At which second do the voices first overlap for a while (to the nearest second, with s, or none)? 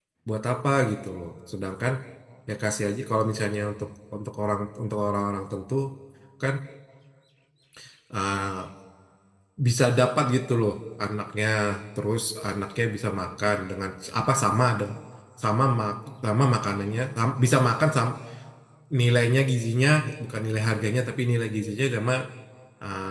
none